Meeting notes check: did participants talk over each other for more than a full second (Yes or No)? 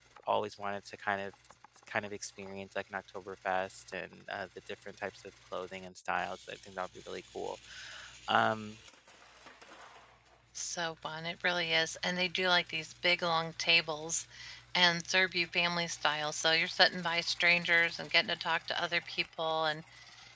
No